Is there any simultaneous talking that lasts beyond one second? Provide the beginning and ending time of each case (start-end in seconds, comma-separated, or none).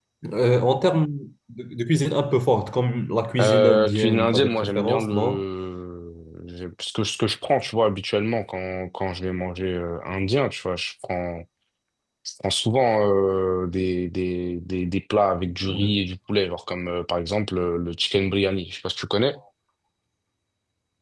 3.4-5.4